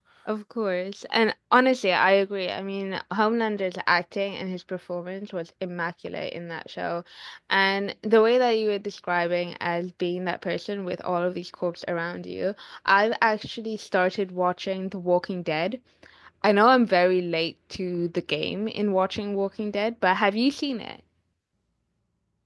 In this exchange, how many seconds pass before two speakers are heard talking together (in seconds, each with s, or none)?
none